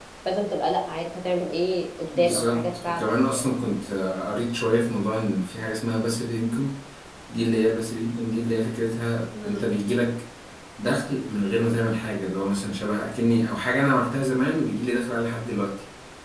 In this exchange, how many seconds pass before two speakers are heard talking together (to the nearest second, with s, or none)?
2 s